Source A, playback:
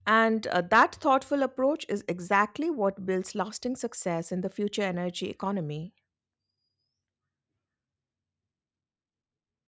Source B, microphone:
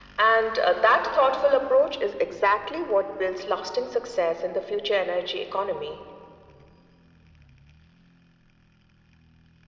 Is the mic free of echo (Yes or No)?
No